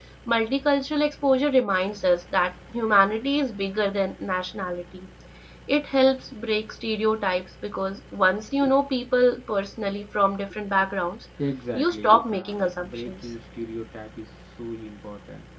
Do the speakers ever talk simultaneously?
Yes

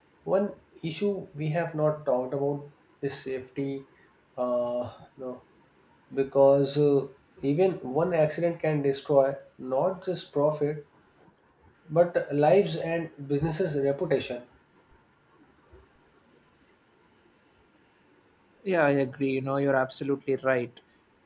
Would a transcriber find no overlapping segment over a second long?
Yes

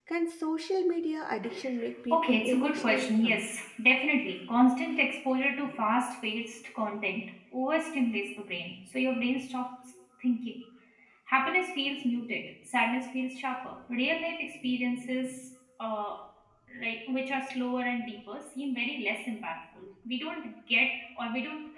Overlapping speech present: Yes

